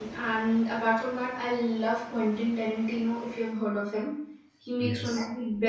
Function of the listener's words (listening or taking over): listening